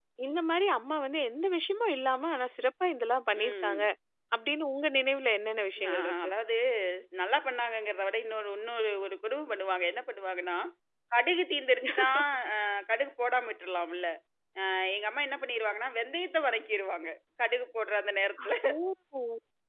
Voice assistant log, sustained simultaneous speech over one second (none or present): none